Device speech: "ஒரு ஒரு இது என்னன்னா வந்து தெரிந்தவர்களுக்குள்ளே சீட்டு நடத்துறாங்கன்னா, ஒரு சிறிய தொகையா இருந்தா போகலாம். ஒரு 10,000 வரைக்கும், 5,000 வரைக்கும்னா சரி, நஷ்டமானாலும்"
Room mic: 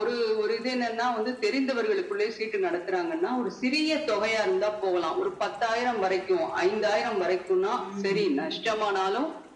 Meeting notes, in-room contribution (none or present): present